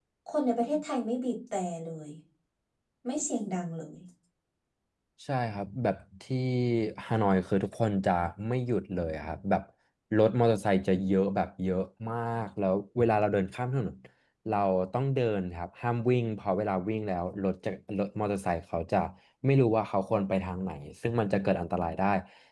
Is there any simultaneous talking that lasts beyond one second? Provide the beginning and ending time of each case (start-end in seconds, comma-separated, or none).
none